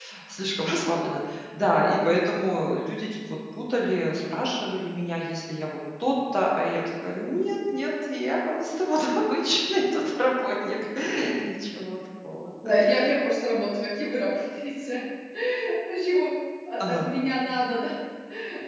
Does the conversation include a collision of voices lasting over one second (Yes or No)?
No